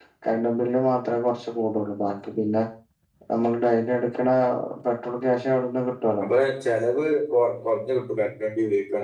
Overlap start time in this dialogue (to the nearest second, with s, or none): none